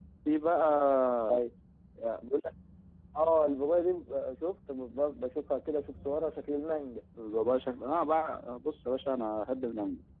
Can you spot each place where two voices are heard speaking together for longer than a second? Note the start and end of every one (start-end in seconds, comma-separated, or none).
none